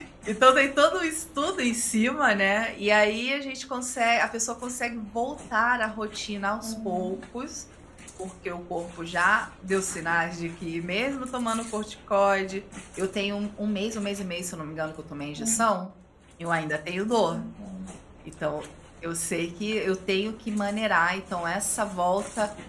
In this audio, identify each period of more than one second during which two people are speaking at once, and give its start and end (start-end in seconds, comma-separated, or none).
none